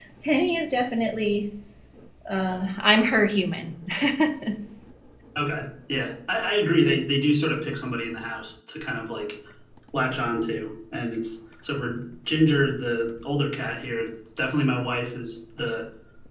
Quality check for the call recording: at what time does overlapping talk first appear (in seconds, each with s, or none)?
none